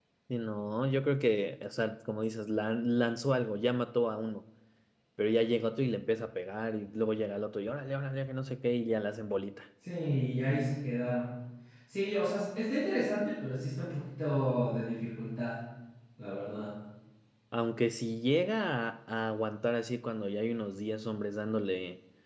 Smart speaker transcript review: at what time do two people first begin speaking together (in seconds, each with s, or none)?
none